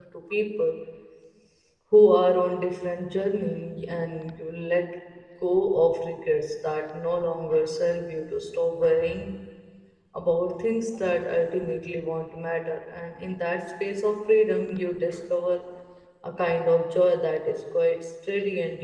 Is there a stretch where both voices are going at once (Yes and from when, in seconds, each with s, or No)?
No